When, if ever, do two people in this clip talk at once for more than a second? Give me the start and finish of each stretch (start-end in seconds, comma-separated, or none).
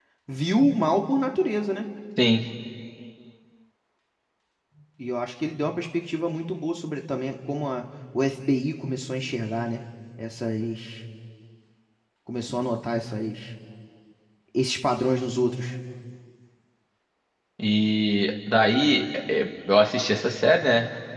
none